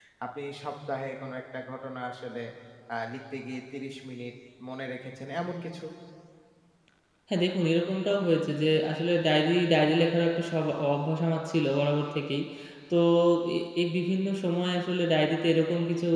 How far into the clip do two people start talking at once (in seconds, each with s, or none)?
none